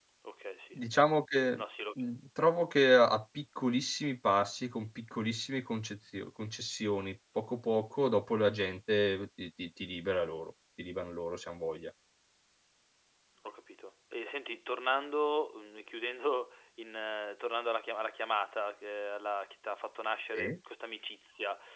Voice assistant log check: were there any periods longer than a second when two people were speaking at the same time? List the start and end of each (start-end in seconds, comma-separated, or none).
none